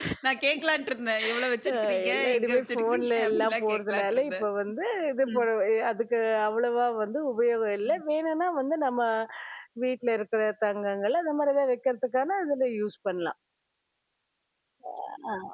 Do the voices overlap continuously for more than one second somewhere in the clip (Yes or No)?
Yes